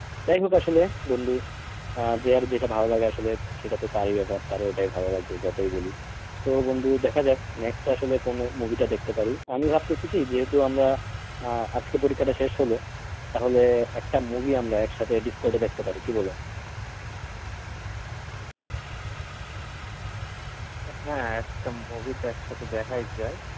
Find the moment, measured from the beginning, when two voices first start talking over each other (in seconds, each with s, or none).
none